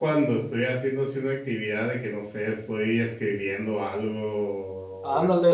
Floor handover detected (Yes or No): Yes